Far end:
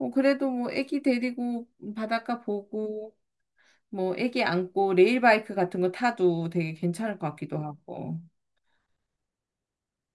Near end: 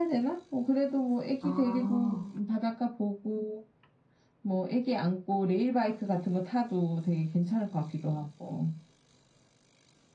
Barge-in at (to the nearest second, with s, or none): 1 s